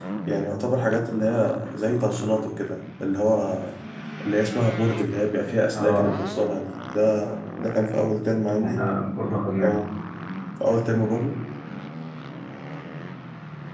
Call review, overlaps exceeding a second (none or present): none